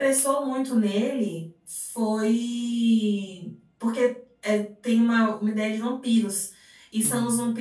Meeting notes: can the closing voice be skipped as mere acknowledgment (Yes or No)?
Yes